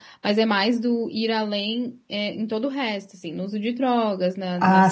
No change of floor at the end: No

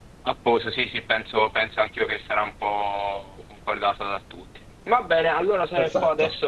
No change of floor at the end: Yes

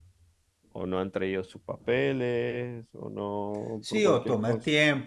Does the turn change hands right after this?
Yes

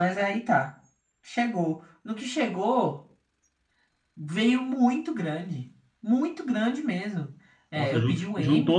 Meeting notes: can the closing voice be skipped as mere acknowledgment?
No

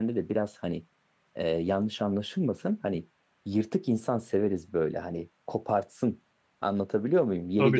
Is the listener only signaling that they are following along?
Yes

